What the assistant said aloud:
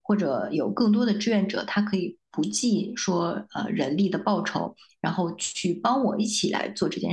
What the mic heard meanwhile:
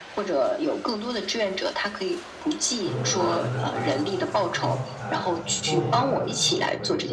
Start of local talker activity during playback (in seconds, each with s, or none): 2.8 s